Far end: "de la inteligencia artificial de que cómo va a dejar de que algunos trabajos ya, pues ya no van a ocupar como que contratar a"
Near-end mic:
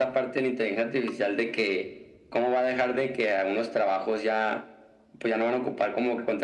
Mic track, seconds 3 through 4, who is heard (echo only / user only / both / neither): echo only